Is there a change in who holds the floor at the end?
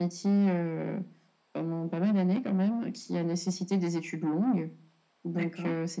No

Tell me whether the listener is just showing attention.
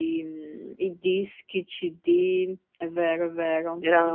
No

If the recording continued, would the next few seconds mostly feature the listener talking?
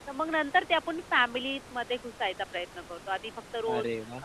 No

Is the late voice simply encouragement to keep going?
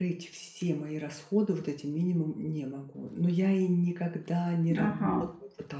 Yes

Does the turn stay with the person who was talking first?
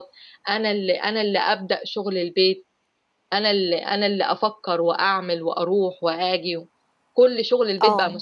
Yes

